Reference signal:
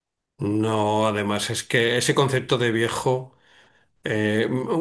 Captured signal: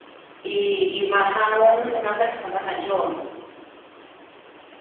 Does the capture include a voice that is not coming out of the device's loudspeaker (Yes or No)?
Yes